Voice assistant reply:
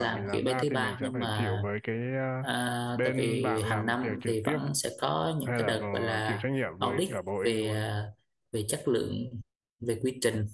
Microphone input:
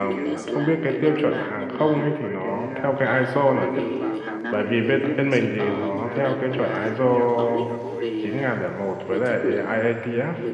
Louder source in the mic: user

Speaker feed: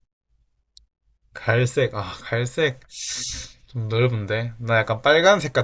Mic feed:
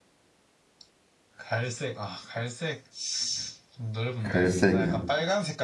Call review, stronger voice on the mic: user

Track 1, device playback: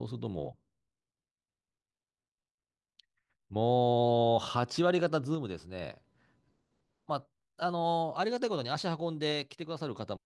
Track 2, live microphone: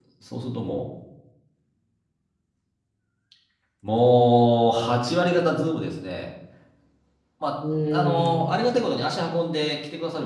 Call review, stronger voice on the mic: echo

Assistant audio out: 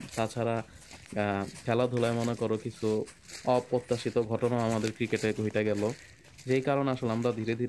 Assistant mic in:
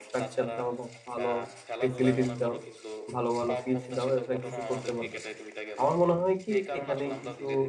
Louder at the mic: user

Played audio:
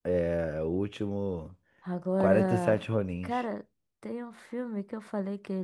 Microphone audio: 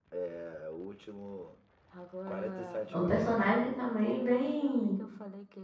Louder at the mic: user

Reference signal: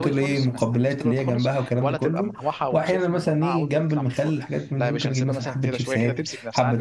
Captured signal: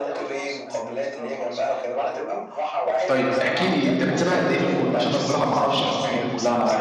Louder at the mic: user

